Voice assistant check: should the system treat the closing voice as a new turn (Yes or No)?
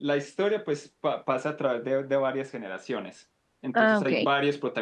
No